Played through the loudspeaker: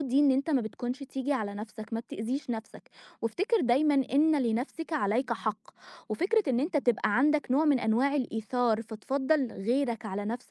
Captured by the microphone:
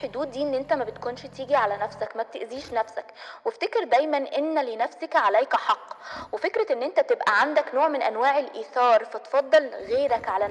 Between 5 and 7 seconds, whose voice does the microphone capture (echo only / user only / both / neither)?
echo only